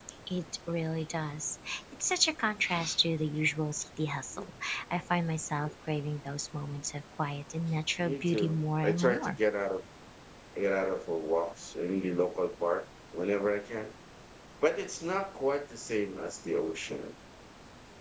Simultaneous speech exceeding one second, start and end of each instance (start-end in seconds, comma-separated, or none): 8.0-9.4